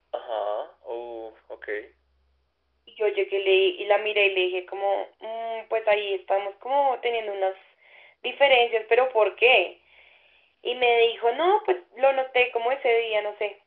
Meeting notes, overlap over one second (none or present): none